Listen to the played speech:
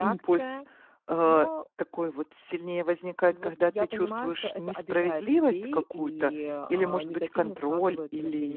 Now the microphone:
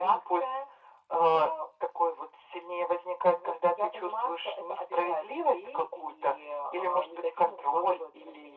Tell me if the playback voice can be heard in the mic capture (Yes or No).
Yes